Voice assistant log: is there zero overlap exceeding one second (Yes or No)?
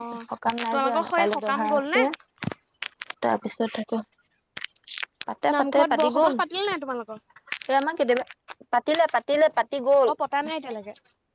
No